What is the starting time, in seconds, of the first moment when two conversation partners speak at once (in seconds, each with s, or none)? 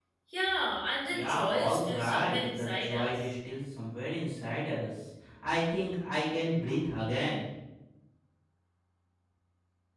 1.1 s